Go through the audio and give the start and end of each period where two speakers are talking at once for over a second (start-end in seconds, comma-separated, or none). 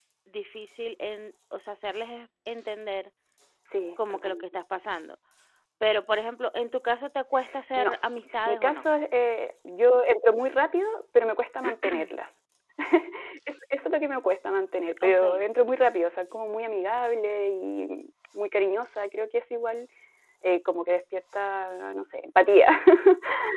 none